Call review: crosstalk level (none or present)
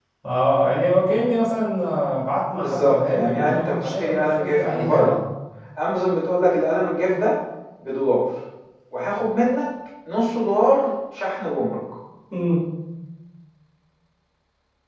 present